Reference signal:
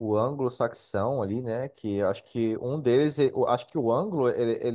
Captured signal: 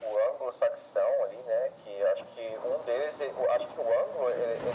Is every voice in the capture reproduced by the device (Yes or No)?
Yes